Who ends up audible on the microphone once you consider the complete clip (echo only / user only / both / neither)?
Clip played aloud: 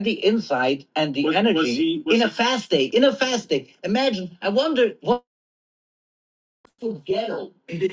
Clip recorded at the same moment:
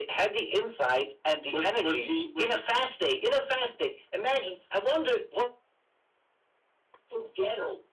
echo only